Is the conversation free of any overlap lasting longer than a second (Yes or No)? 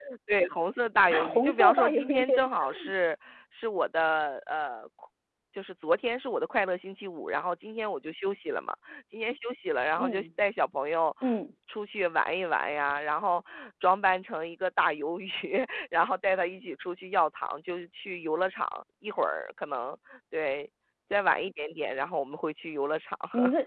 No